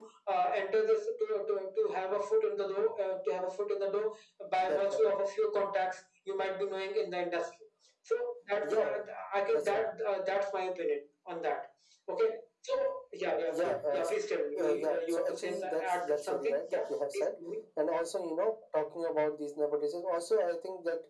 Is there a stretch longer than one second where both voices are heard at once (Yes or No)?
Yes